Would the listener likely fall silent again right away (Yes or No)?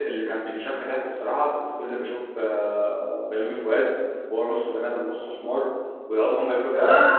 Yes